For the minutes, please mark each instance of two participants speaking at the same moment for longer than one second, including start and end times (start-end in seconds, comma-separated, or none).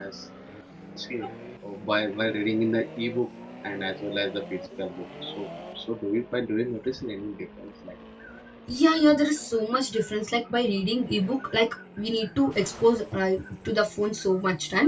none